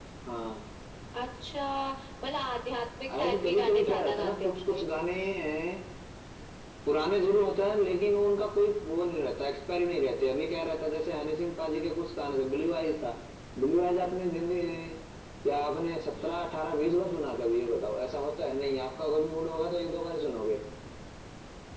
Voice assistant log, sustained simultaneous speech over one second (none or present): present